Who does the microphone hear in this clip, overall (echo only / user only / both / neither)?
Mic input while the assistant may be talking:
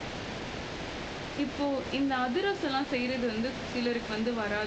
user only